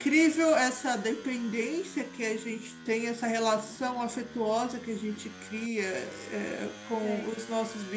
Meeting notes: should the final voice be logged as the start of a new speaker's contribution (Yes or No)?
No